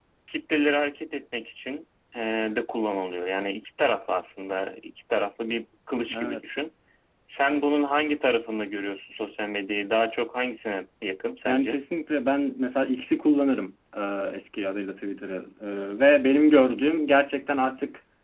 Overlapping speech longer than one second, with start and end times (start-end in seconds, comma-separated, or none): none